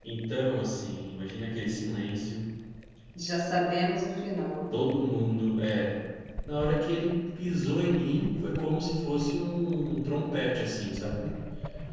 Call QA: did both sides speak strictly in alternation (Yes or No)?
Yes